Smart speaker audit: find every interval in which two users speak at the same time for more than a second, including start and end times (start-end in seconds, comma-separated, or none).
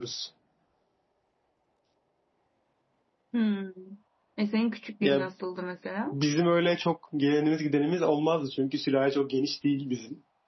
none